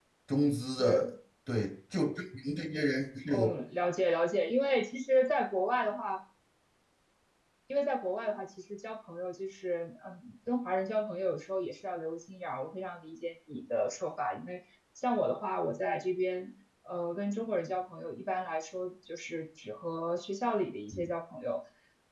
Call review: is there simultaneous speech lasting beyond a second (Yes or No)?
No